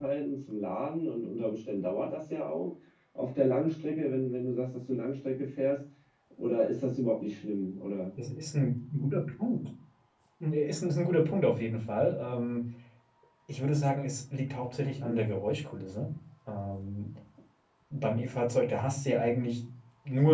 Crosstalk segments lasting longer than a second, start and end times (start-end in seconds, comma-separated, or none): none